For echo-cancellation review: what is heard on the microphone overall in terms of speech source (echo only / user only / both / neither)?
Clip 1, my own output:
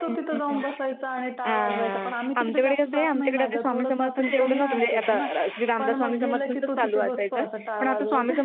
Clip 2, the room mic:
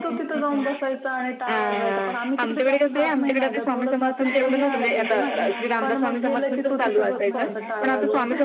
both